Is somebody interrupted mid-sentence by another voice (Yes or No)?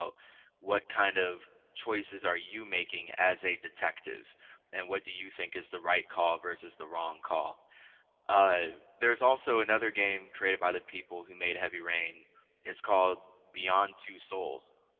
No